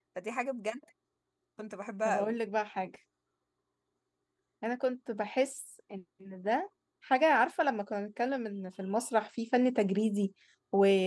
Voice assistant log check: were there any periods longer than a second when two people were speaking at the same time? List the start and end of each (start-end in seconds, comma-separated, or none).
none